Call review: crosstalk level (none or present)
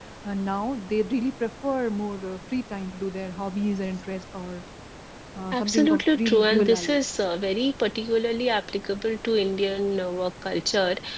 present